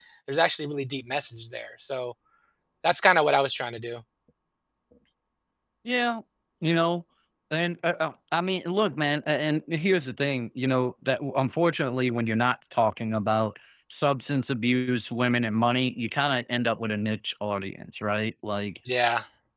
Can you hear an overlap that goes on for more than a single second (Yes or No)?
No